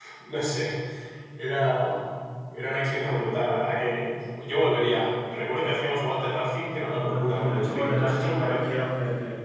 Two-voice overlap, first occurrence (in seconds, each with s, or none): 7.0 s